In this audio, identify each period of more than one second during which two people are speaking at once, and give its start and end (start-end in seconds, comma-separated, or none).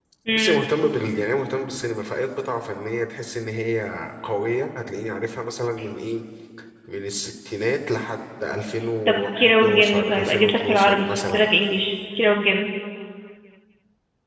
9.1-11.5